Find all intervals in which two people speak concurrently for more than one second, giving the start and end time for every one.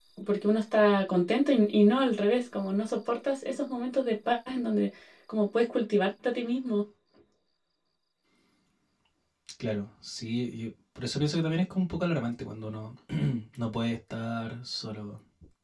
none

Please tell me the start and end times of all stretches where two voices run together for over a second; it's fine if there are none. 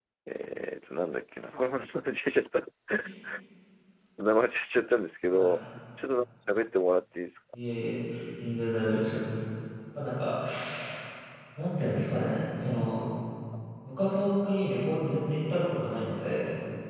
none

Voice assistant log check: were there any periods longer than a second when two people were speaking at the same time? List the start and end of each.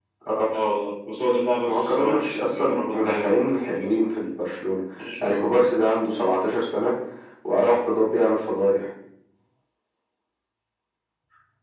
1.6-4.0

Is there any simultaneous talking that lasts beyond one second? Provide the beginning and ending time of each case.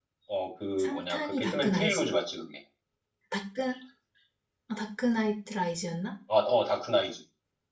0.8-2.1

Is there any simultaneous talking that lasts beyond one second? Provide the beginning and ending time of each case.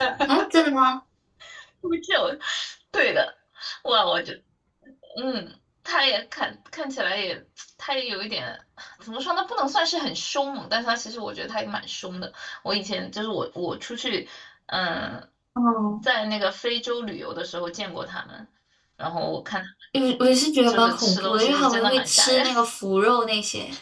20.7-22.4

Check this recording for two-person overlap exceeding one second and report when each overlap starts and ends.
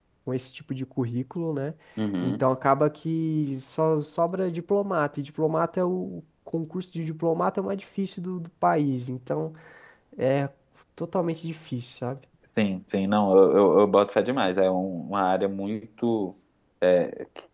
none

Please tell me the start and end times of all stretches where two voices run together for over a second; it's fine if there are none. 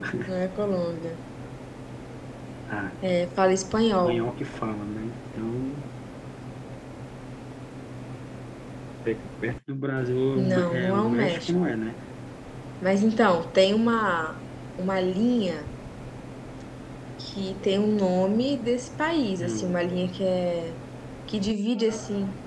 10.4-11.8

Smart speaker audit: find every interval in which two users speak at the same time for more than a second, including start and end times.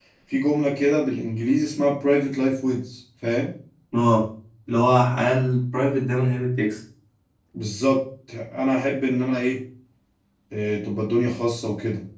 none

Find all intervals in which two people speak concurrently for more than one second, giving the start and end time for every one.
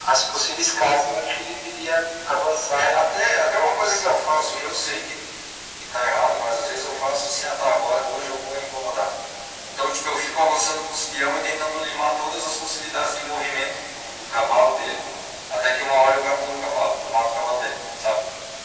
2.8-4.2

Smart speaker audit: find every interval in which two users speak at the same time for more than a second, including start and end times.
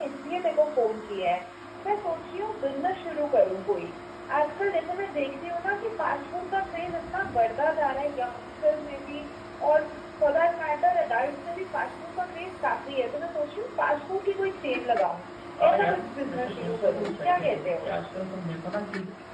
15.7-17.9

